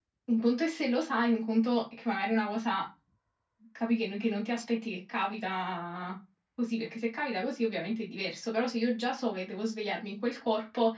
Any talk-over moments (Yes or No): No